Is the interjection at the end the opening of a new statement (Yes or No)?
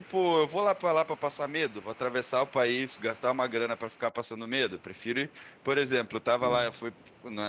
No